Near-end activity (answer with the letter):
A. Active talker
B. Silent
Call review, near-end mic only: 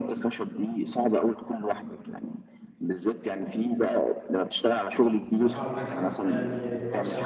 A